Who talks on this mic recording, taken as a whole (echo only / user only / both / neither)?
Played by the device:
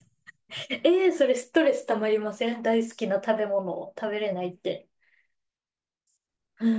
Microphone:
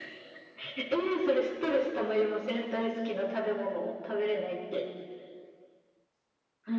echo only